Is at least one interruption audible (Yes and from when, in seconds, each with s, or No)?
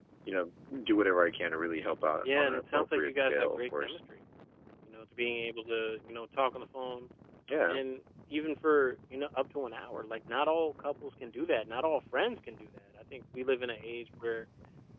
Yes, from 2.2 s